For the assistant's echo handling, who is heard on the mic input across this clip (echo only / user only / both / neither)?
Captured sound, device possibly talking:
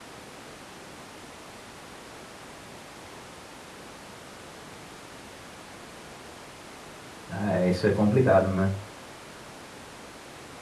user only